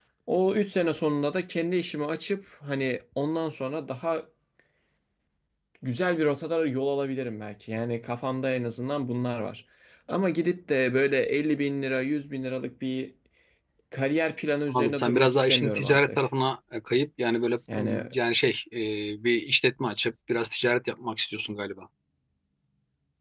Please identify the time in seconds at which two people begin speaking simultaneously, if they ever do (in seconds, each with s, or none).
14.7 s